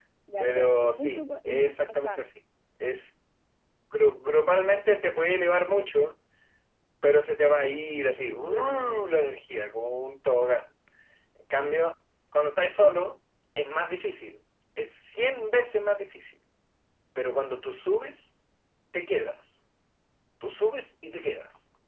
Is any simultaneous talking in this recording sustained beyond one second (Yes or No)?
Yes